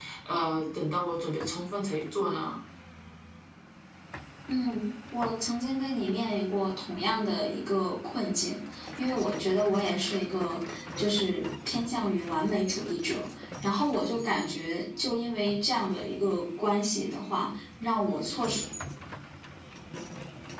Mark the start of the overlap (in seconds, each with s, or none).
none